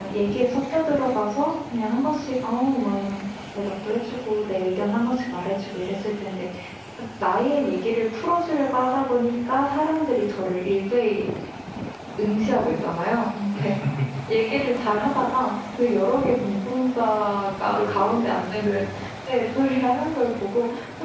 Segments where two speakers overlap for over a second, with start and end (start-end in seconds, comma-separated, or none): 17.6-18.9